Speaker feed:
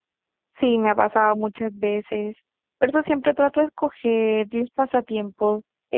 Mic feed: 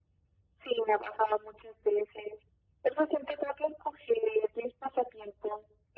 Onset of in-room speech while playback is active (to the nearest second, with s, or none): none